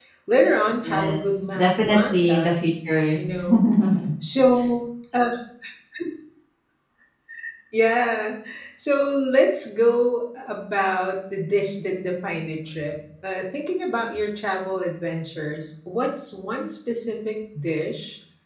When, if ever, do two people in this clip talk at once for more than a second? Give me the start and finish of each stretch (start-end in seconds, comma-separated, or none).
0.8-2.6